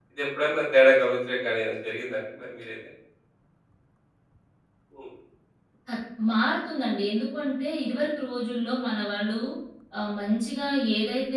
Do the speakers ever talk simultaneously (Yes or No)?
No